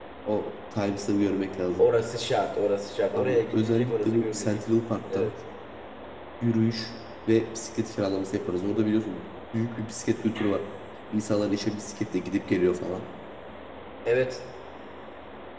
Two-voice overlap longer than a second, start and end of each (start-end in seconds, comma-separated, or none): 3.1-4.6